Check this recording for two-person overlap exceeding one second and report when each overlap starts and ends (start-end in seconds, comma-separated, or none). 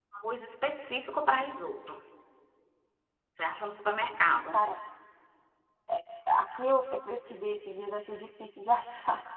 none